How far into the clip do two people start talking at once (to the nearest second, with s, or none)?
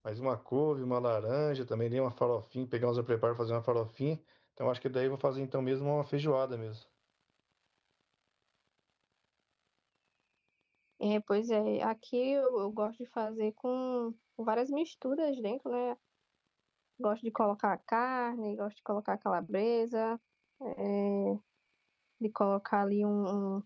none